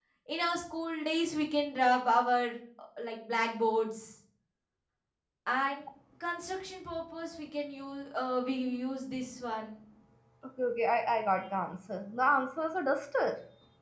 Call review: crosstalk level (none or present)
none